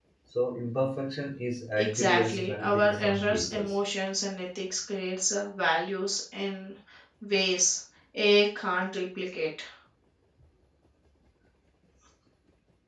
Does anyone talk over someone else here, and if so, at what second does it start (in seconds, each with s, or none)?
1.8 s